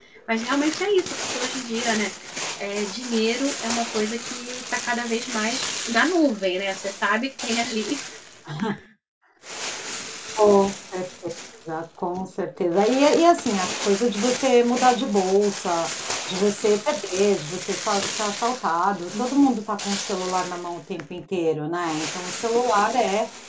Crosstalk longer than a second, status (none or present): none